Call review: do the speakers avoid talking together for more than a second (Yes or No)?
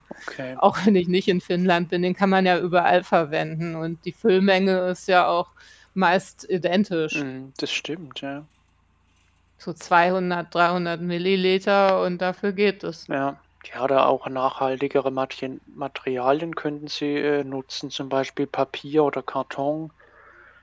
Yes